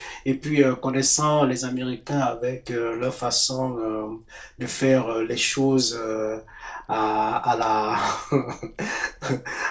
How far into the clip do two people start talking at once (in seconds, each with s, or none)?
none